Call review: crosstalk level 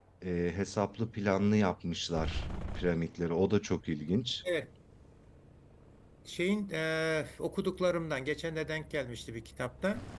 none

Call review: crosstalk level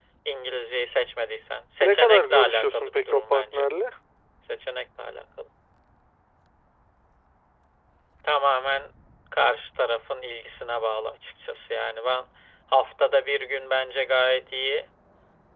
present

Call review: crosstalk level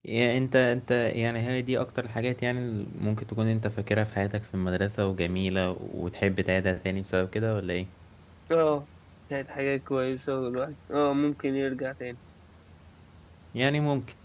none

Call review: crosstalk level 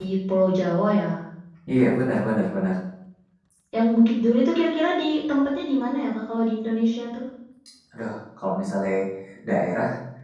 none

